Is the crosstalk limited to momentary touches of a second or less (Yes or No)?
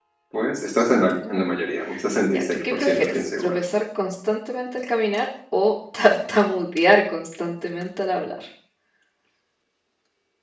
No